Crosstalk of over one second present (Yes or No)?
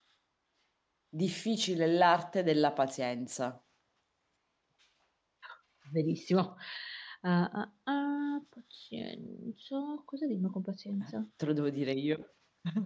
No